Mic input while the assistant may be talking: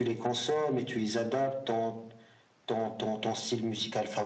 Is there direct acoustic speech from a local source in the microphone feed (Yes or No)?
No